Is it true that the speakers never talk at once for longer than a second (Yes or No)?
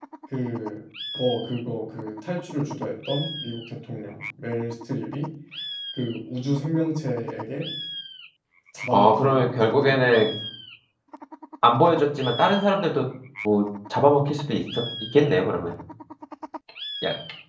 No